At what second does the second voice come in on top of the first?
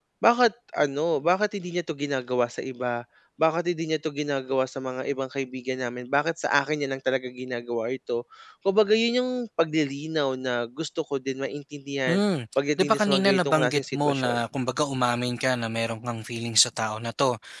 13 s

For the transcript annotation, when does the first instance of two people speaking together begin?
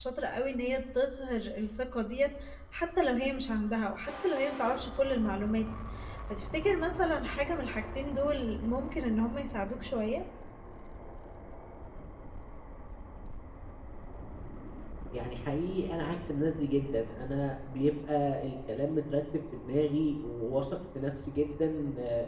none

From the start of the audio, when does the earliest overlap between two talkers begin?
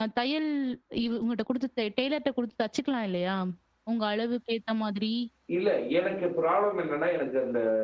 none

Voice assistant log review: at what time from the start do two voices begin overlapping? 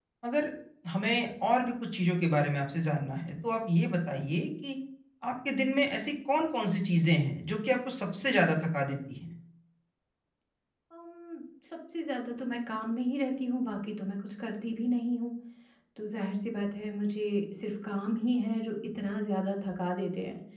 none

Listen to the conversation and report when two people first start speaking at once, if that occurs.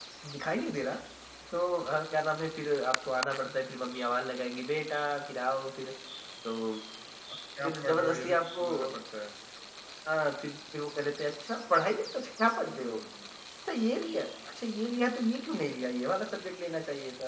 8 s

